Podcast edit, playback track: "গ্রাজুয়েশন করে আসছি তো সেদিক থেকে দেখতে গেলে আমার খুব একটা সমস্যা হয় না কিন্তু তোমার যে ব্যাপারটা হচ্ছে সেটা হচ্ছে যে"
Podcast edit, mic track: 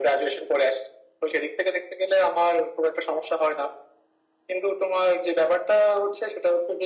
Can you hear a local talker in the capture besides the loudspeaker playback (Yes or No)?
No